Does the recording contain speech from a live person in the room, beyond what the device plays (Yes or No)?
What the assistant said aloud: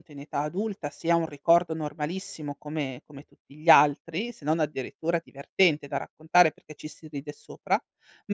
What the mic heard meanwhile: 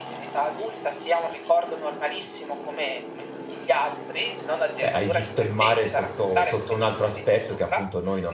Yes